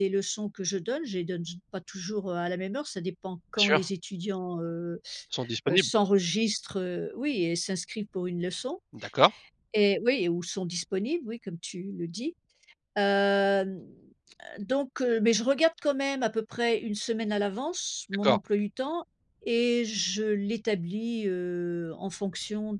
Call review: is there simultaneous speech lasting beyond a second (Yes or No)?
No